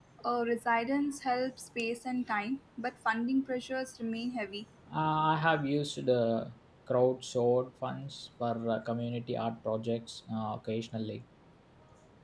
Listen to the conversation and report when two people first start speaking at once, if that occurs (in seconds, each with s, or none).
none